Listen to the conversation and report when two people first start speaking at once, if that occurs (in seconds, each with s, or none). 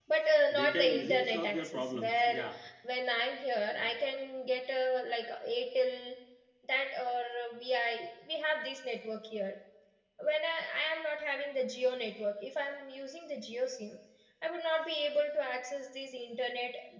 0.5 s